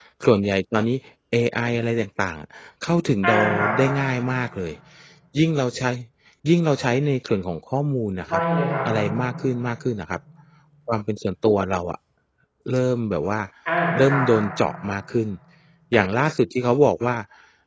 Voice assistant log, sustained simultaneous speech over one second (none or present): none